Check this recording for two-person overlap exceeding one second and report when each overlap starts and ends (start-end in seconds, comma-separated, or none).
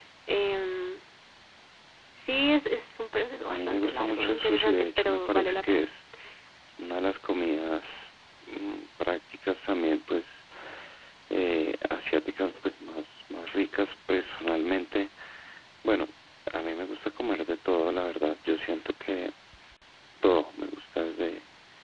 3.5-5.8